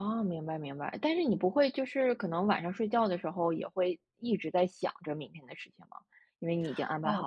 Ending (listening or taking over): taking over